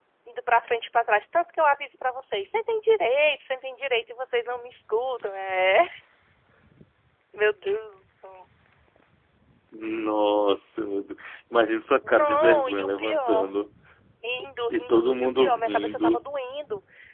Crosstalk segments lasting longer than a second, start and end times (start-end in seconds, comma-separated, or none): 12.0-13.5, 14.7-16.3